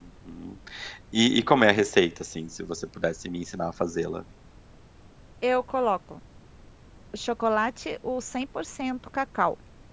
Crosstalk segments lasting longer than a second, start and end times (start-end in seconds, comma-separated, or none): none